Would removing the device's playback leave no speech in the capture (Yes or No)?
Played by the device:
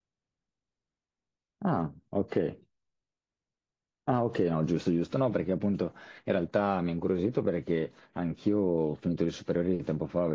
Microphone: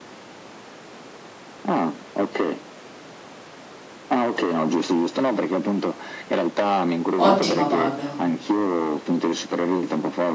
No